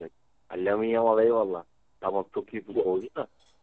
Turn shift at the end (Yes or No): No